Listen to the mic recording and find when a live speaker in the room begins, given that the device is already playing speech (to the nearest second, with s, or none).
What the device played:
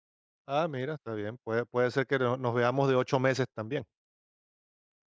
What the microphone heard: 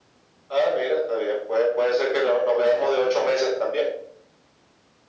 none